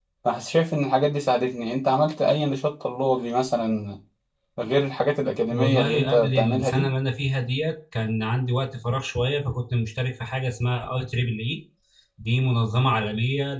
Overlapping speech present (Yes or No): Yes